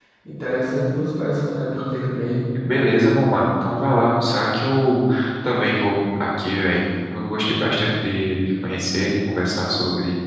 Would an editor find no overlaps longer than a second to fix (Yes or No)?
Yes